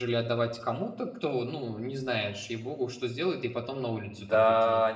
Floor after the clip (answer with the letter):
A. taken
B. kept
A